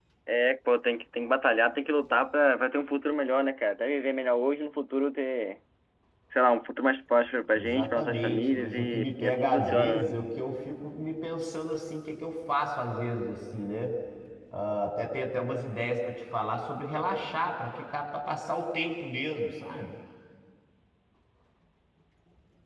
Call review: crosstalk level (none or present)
present